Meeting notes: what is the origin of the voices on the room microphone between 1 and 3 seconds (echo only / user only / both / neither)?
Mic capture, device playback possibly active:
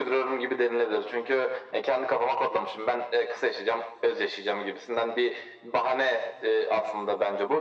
echo only